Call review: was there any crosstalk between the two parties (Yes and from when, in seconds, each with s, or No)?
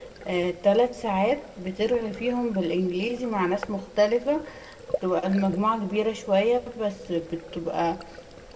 No